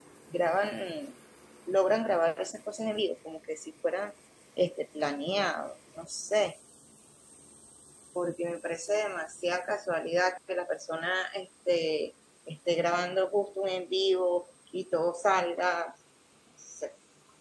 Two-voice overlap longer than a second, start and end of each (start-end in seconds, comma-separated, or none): none